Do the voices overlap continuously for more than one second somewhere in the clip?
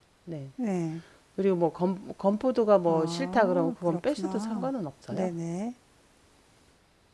Yes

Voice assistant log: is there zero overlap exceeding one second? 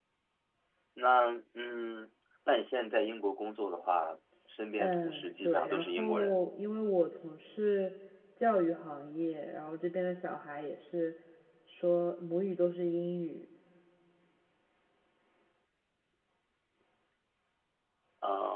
No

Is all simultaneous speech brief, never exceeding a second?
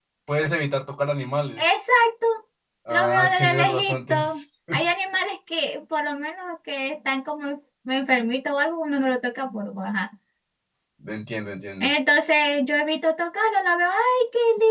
No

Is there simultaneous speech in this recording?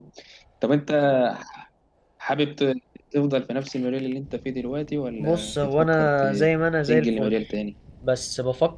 Yes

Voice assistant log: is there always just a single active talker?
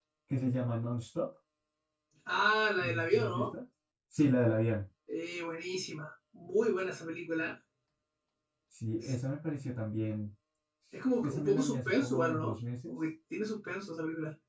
No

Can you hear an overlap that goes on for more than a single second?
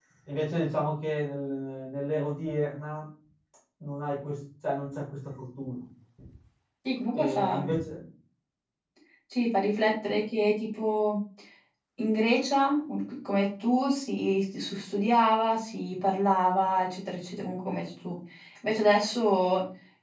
No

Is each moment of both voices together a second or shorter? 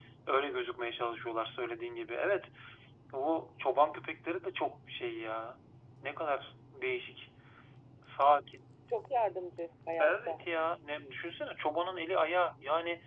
Yes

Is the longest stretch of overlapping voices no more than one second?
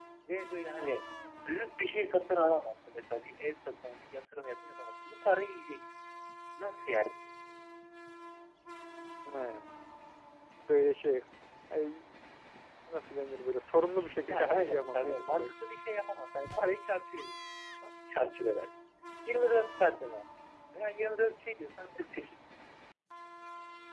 No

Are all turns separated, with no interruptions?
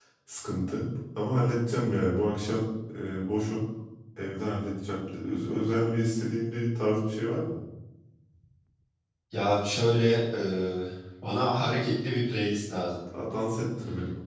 Yes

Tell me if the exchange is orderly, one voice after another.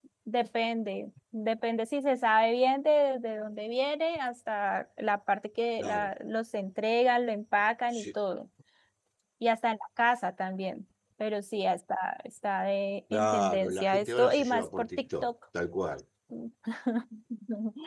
No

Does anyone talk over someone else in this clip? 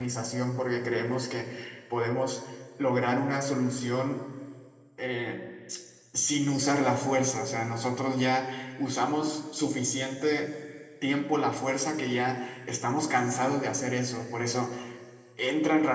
No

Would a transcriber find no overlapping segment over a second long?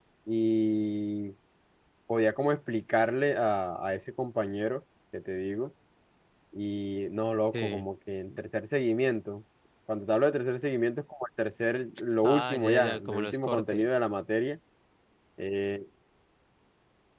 No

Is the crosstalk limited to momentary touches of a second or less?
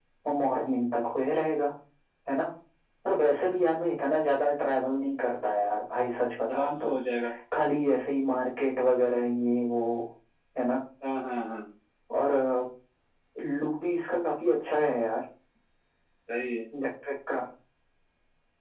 Yes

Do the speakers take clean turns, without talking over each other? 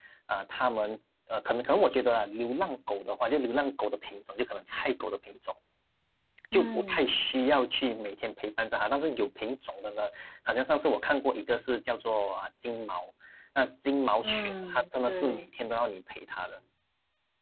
No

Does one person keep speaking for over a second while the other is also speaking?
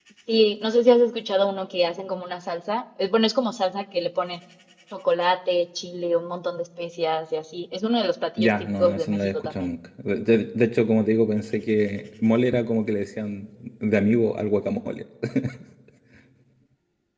Yes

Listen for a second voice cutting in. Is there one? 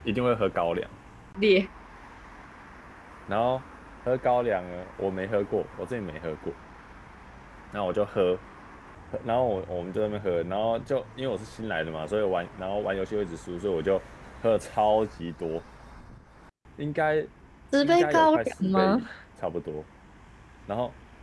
Yes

